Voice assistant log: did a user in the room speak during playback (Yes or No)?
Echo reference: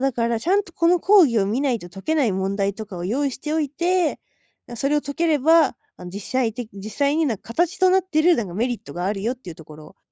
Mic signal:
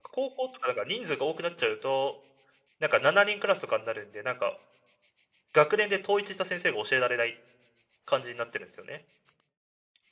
Yes